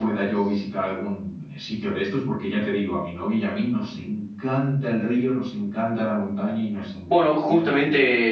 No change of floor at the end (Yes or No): No